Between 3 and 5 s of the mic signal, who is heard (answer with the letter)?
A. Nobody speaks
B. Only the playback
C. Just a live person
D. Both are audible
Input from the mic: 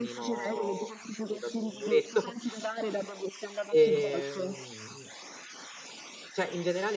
D